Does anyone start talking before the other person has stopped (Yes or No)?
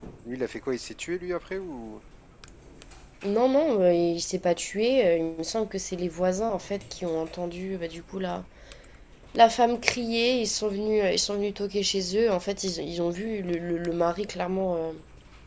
No